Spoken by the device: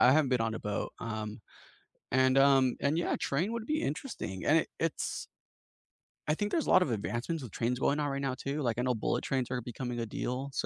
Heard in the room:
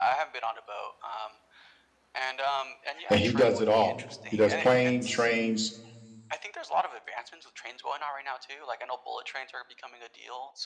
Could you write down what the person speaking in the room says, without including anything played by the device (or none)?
and he does it all. He does plane, trains,